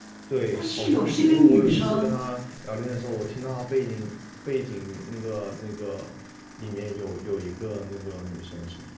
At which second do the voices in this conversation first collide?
0.5 s

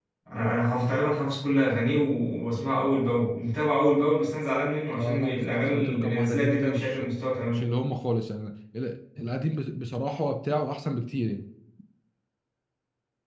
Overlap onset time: 4.9 s

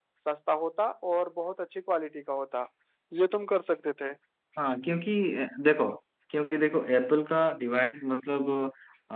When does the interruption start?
none

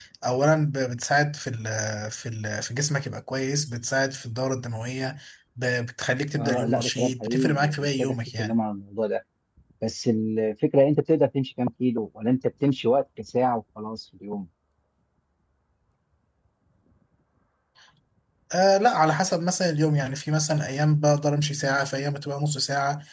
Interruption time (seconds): 6.4 s

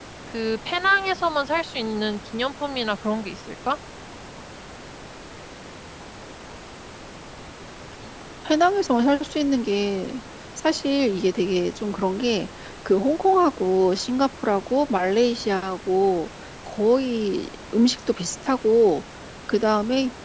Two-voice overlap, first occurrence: none

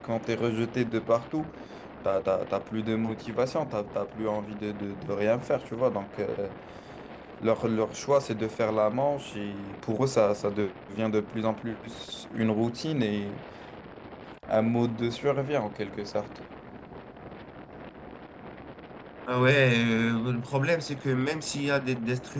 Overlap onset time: none

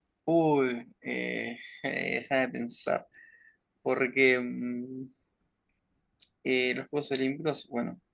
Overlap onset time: none

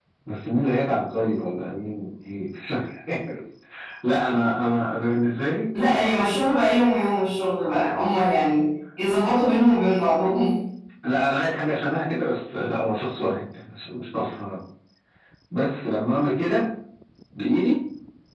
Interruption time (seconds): none

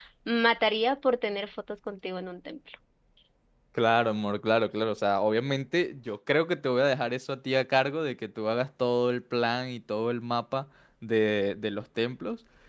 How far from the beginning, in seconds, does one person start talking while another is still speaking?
none

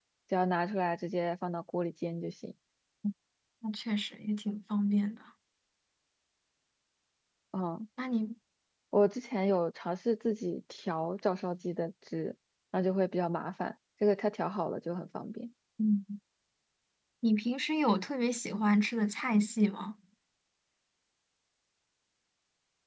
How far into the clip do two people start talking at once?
none

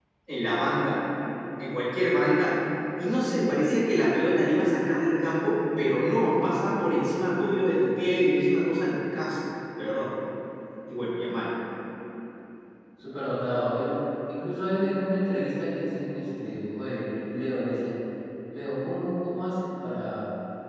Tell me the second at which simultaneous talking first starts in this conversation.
none

